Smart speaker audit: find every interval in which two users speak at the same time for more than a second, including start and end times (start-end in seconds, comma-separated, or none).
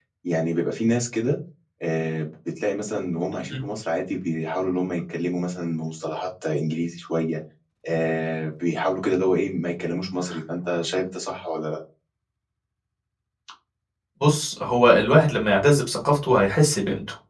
none